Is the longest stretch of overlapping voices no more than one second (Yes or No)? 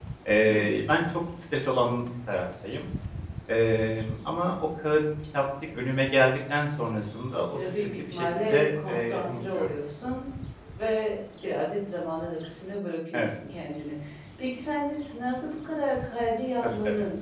No